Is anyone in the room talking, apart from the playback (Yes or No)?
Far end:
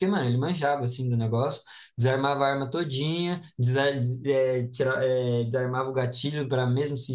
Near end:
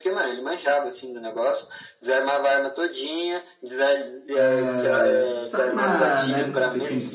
Yes